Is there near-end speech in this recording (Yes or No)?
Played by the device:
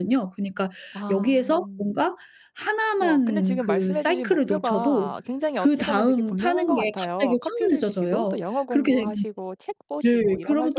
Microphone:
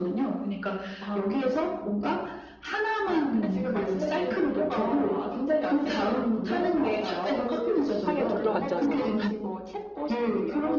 Yes